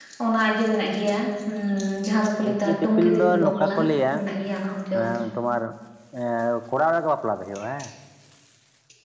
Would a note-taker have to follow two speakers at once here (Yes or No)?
Yes